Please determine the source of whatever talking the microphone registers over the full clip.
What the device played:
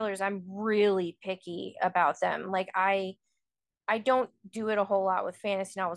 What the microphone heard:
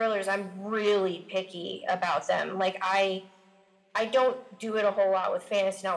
echo only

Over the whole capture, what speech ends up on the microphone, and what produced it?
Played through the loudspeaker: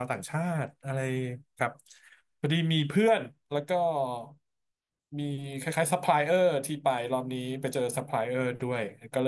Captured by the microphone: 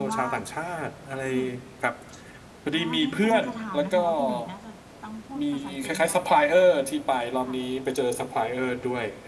both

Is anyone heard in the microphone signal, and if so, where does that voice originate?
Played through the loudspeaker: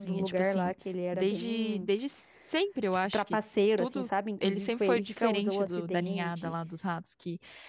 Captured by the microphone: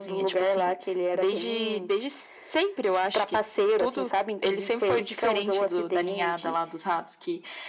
echo only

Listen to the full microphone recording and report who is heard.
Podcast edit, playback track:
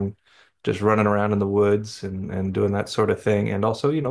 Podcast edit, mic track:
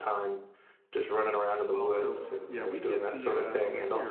both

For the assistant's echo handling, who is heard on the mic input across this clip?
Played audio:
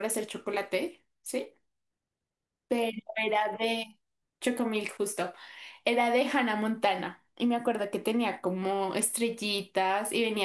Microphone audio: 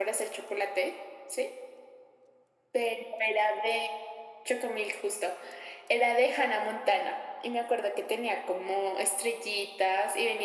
echo only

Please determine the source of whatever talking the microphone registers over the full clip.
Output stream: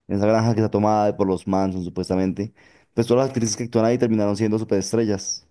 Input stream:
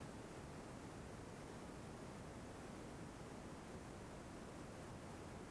neither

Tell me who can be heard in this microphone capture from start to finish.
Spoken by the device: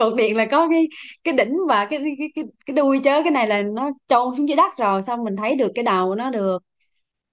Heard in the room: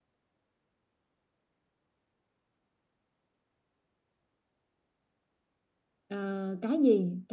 user only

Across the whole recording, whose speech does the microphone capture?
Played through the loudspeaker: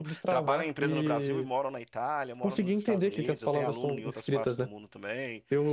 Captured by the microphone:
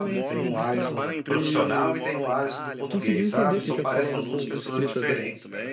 both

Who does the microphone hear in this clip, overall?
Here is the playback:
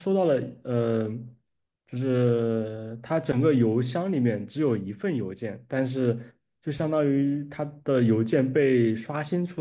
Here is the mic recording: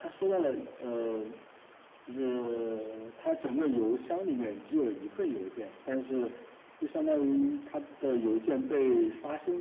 echo only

